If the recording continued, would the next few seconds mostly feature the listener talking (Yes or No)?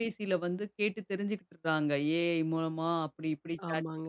No